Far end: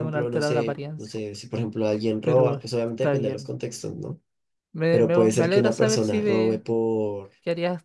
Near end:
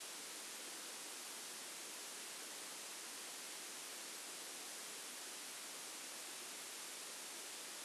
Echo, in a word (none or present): none